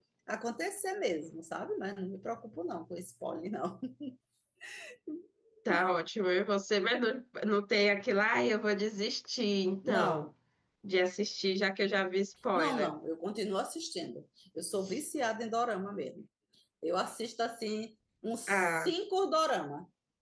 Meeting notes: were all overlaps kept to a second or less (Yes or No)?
Yes